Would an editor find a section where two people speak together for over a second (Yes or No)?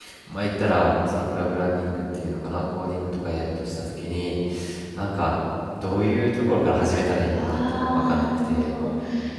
Yes